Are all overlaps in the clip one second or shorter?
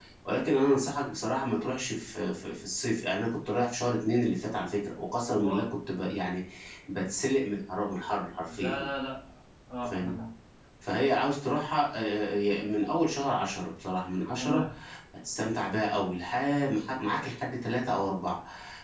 Yes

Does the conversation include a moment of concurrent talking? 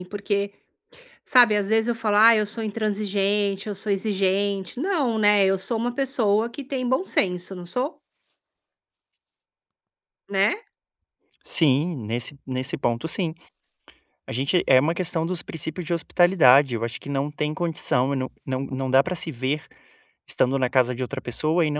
No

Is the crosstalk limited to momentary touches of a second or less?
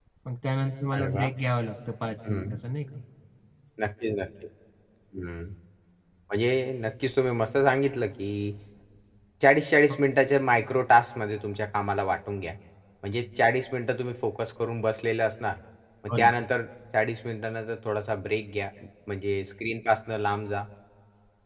Yes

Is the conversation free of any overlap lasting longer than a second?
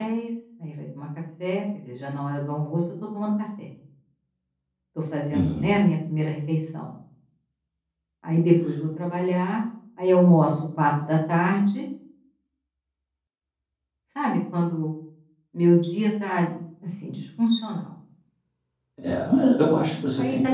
Yes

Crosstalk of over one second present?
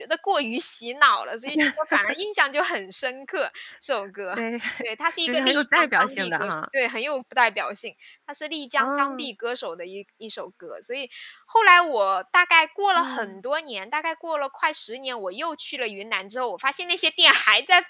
Yes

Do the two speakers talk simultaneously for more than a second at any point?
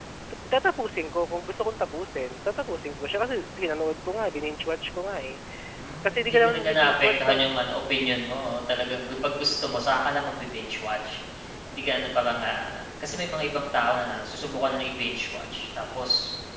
Yes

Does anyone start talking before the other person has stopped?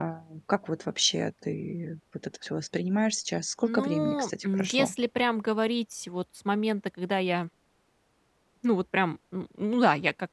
Yes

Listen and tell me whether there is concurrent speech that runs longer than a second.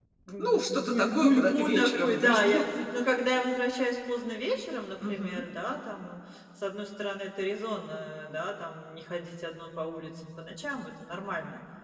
Yes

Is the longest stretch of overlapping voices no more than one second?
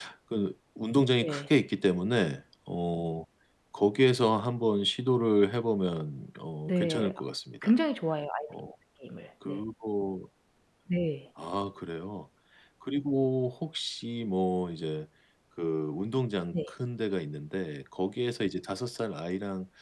Yes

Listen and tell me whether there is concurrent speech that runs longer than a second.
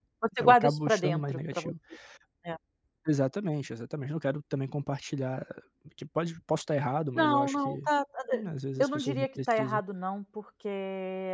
Yes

